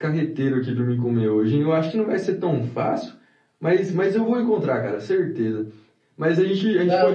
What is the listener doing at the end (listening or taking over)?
taking over